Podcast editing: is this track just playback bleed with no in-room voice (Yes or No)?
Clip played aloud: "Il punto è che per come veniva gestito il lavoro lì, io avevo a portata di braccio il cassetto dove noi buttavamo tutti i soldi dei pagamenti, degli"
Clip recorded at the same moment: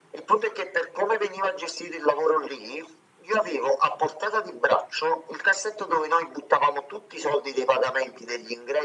Yes